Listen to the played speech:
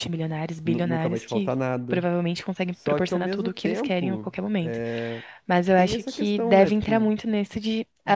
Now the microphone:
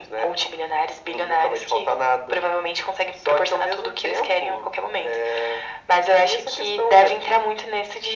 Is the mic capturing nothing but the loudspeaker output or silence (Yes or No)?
Yes